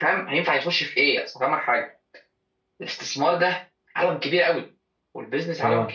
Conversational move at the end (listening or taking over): listening